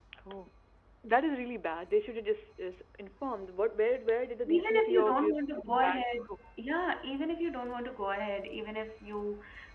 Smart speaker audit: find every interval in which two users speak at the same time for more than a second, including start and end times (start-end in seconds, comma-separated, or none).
4.5-6.0